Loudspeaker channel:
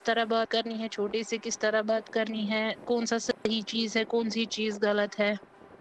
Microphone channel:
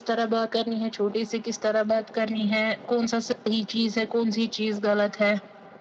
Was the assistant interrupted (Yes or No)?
No